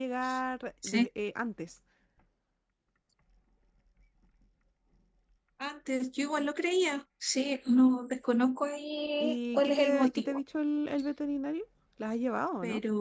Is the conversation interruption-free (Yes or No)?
No